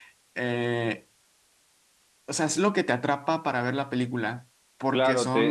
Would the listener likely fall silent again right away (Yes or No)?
No